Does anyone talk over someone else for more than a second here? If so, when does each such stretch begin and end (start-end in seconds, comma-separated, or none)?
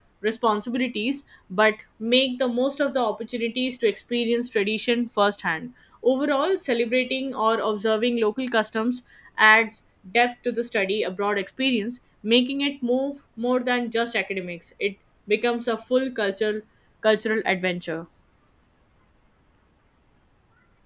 none